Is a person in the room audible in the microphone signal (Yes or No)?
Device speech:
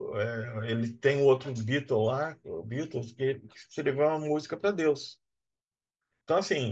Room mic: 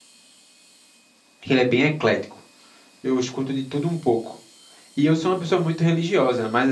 Yes